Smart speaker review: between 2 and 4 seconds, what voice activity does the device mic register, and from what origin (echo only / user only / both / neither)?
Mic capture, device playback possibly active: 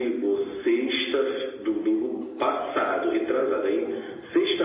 echo only